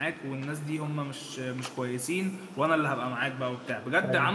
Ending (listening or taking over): listening